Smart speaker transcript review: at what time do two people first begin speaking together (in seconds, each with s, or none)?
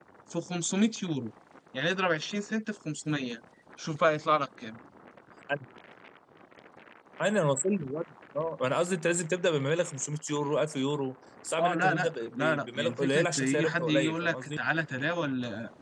11.6 s